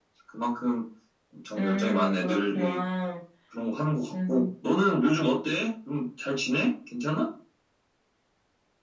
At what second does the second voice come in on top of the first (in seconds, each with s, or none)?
1.6 s